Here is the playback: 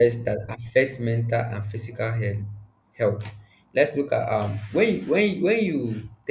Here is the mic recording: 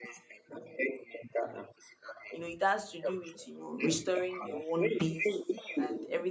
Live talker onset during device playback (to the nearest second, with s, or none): 2 s